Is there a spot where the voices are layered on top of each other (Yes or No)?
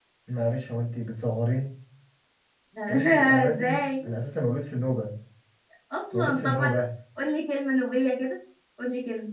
Yes